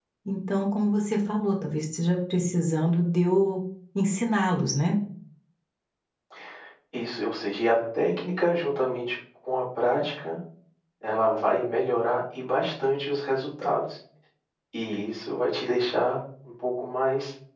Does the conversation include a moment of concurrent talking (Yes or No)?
No